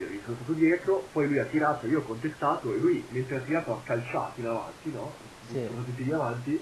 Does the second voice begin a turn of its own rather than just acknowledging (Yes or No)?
No